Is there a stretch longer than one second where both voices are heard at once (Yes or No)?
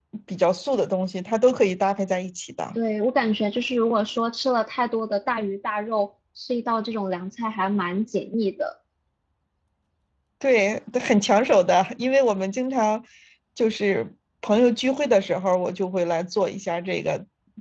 No